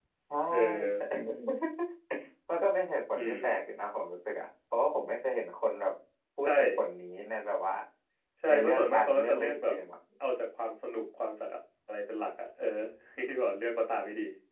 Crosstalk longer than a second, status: present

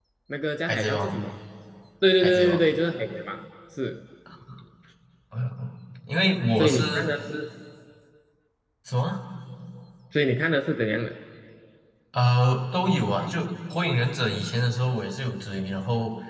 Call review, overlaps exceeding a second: none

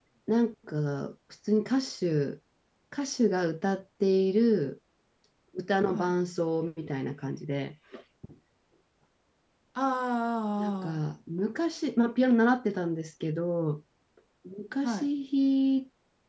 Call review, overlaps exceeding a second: none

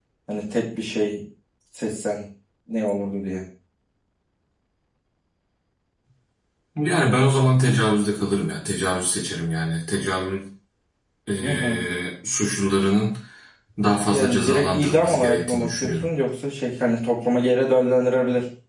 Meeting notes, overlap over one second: present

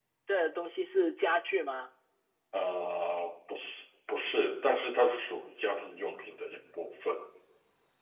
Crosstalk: none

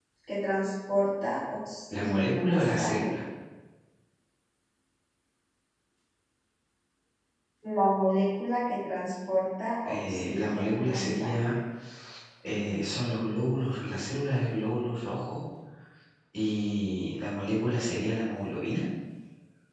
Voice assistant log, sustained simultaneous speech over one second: present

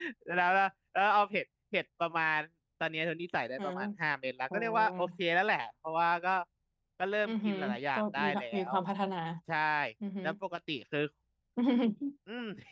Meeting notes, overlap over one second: present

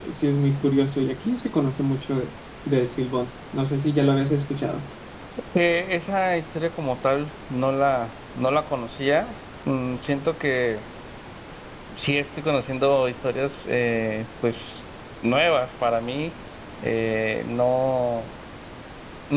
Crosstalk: none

